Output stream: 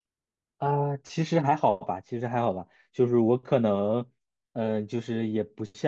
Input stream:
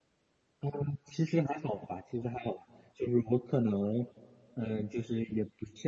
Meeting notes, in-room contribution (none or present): none